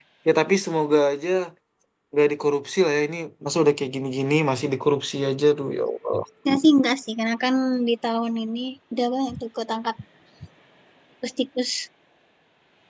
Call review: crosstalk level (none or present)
none